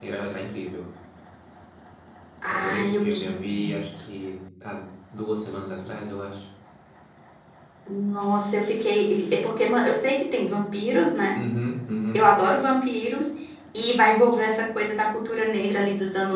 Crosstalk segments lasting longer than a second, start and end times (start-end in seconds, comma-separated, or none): 2.5-3.7